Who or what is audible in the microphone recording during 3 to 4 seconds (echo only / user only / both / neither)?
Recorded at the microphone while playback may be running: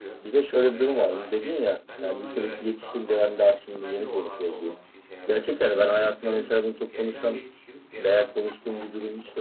both